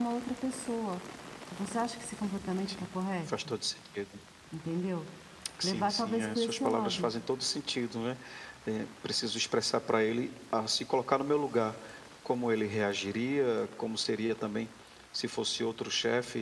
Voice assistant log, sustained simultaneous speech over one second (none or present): present